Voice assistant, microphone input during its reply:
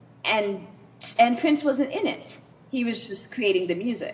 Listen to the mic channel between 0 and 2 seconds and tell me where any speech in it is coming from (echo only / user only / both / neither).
user only